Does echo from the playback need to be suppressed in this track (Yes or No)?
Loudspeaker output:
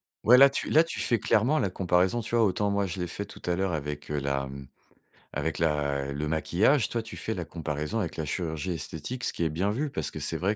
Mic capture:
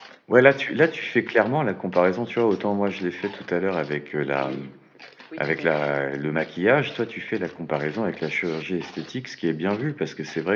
Yes